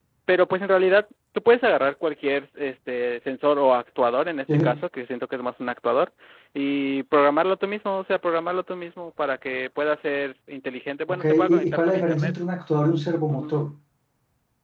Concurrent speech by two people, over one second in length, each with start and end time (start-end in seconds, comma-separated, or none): 11.1-12.3